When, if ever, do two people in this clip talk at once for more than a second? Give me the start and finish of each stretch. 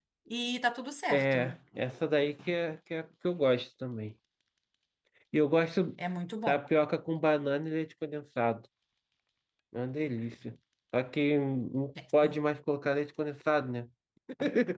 none

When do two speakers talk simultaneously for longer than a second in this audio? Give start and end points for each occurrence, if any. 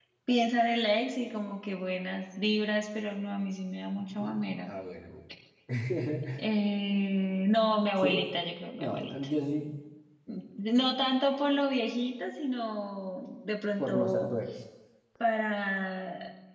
none

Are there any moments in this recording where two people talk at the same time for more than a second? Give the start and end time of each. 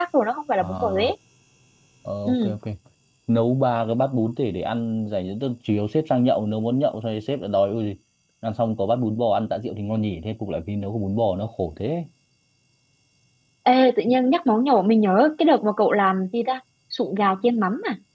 none

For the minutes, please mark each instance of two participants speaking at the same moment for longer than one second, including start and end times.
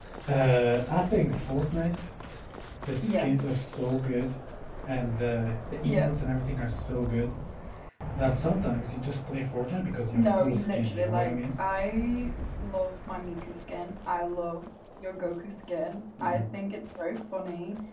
10.1-11.3

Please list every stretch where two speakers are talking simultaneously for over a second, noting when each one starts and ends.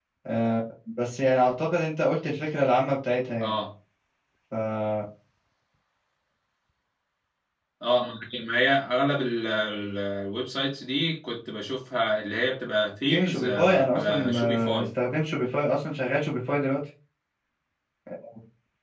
13.1-14.9

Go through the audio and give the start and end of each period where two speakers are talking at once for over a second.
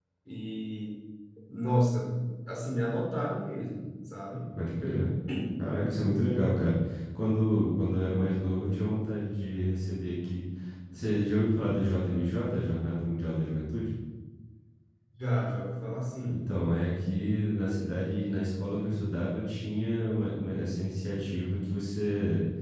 none

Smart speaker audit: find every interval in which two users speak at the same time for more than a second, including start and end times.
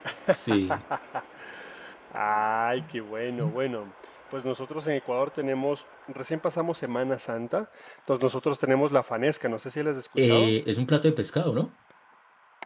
none

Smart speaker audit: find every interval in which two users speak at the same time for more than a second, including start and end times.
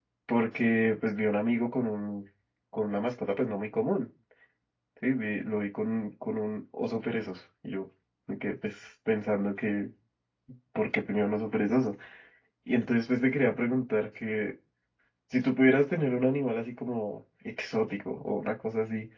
none

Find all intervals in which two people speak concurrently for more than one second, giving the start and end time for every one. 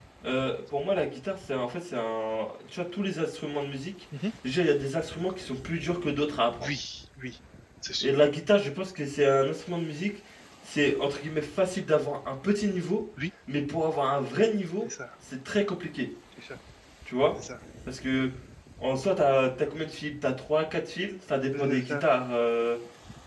none

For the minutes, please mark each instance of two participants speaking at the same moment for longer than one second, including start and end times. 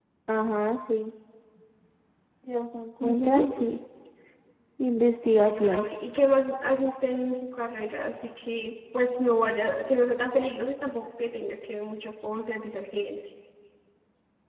none

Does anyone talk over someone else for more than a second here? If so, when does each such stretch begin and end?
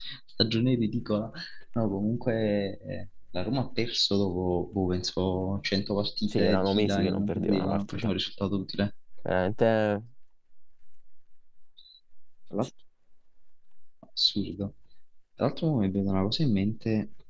6.3-8.1

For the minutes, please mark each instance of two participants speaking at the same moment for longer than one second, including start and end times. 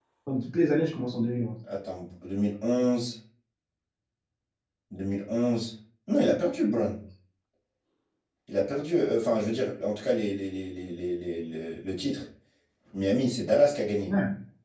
none

